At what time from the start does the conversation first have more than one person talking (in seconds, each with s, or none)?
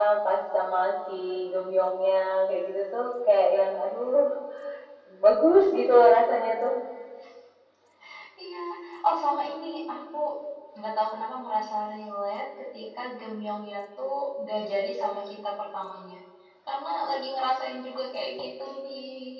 none